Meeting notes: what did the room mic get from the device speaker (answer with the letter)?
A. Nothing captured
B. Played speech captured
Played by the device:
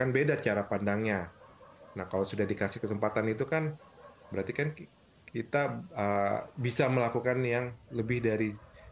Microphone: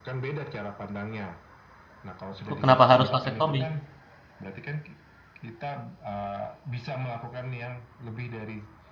B